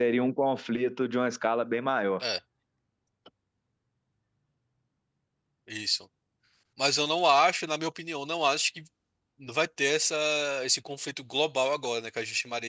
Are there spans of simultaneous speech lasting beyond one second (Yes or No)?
No